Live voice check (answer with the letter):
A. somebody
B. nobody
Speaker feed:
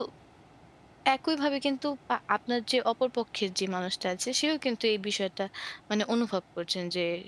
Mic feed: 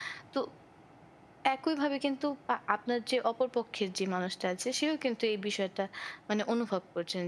B